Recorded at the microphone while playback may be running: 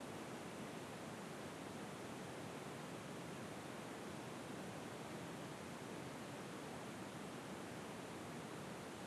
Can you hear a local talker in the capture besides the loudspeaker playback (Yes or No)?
No